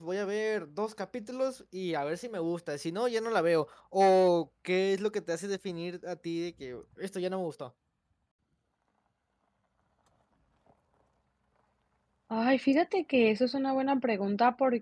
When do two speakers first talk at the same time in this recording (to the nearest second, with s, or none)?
none